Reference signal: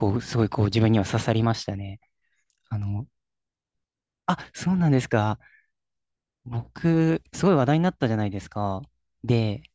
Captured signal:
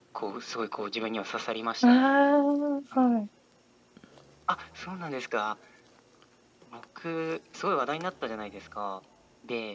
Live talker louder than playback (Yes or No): Yes